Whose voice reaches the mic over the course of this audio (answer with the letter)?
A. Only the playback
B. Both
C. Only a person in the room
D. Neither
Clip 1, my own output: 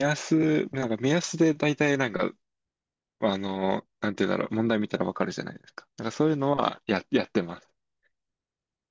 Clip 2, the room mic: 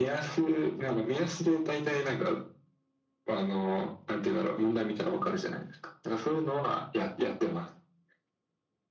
A